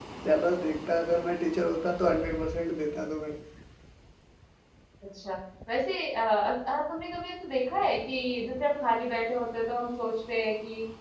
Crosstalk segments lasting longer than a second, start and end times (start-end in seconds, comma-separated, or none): none